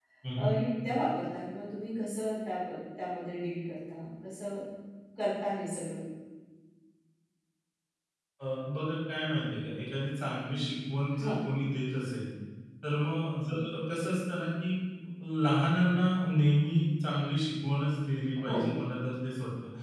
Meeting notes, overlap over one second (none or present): none